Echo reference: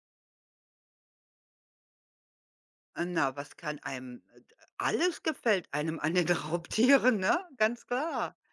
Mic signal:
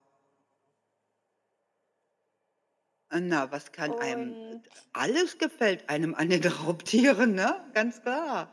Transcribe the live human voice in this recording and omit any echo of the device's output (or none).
Und